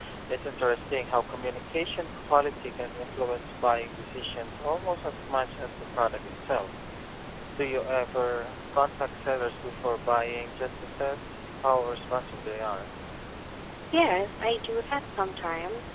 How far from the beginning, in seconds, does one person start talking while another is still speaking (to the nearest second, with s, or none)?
none